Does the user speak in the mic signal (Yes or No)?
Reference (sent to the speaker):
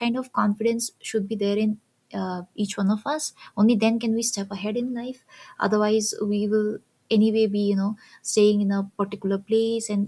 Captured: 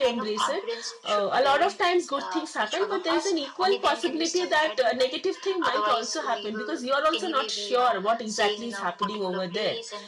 Yes